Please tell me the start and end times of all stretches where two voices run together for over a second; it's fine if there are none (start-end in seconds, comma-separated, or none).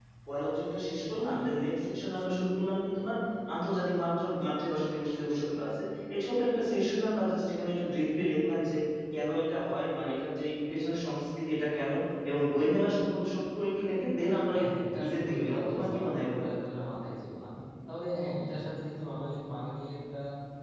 15.0-16.5